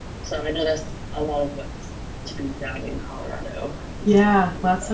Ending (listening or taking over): taking over